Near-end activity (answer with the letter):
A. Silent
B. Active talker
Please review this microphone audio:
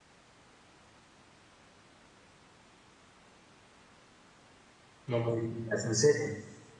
B